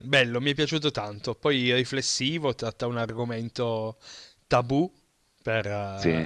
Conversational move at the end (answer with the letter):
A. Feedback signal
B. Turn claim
A